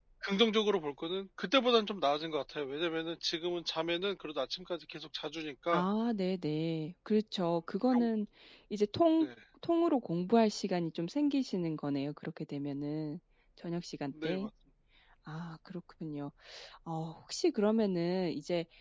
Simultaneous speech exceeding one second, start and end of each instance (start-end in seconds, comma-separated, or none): none